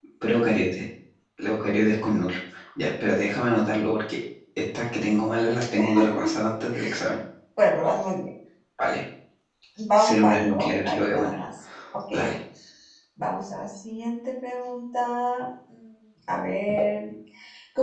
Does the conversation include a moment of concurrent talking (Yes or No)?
Yes